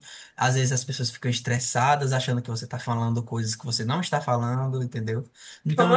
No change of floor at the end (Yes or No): Yes